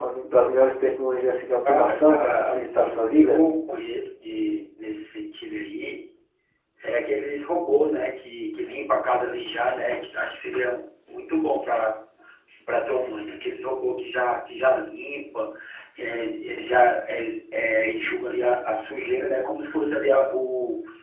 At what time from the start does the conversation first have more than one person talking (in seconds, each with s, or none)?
1.6 s